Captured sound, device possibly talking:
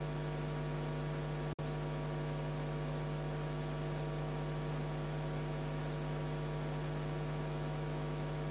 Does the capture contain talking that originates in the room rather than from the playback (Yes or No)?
No